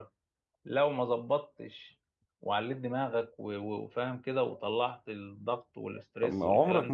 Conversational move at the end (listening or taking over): taking over